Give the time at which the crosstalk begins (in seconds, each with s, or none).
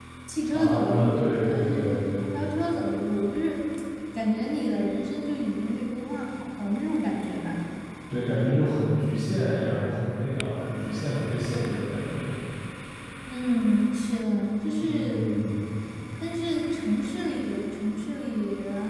0.5 s